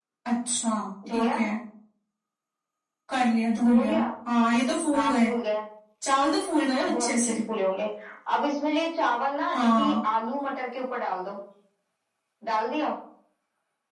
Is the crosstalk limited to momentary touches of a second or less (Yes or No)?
Yes